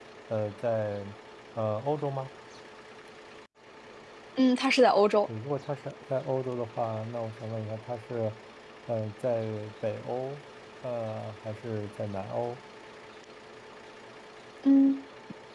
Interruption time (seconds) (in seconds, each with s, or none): none